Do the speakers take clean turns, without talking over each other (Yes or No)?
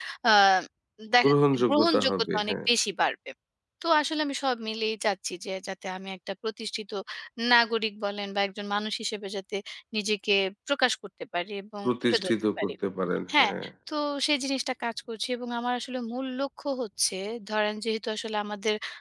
No